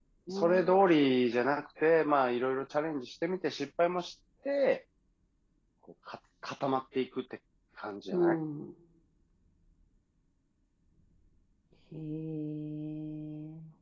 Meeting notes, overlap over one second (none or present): none